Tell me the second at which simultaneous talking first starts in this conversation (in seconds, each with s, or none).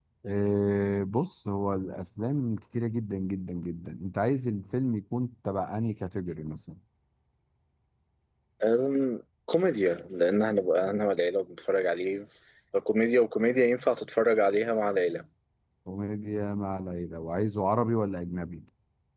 none